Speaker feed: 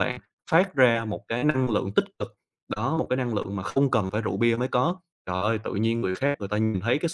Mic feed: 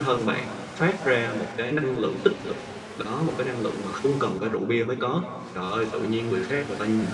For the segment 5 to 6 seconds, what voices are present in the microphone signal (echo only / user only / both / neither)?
echo only